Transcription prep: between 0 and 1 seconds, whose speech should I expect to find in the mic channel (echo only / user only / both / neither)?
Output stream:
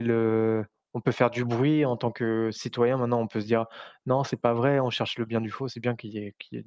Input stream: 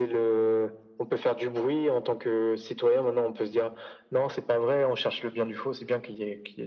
echo only